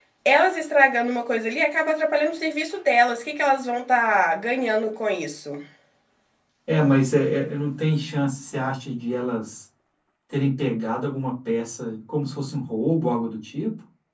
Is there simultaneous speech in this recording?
No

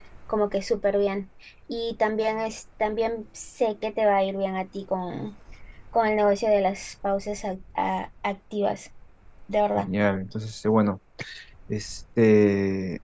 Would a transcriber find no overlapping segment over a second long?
Yes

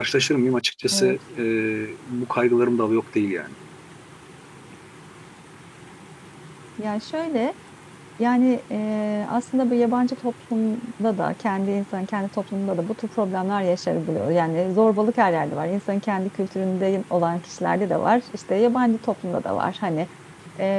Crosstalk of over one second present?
No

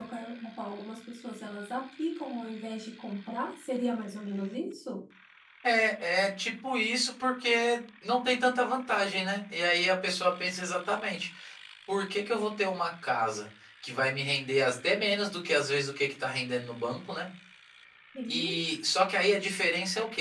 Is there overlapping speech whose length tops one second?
No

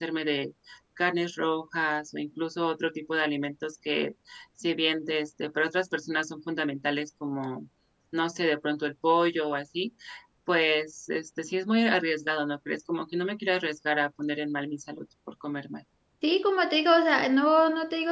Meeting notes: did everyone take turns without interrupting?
Yes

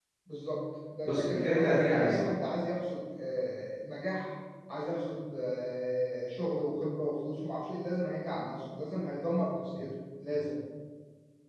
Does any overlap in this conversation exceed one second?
Yes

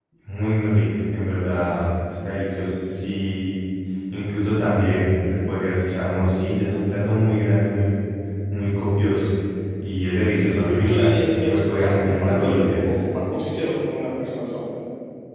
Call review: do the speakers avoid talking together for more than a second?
No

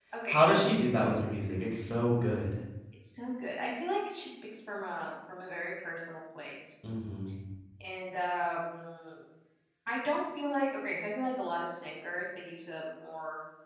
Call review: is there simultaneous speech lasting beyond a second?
No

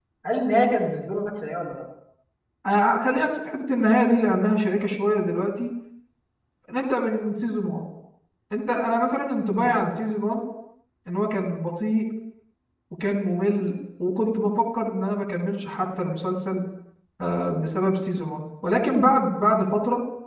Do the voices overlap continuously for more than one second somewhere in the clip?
No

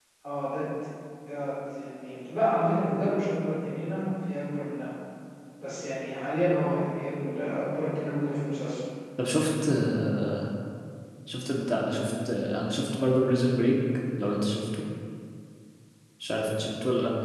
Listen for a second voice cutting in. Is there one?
No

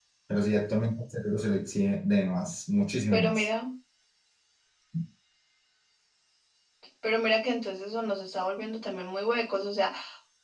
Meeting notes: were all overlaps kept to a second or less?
Yes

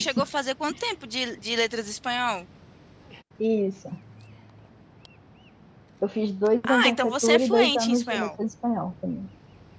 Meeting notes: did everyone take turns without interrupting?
No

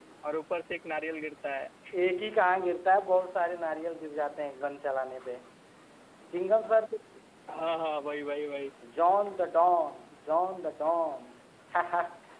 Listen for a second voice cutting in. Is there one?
No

